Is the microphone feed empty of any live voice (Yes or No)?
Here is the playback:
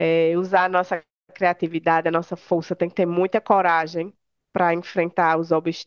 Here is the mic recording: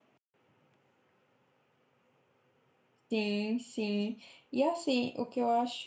No